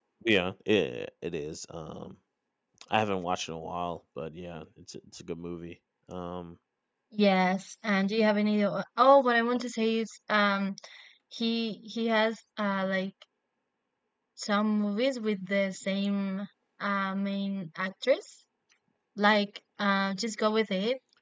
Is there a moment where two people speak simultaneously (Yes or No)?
No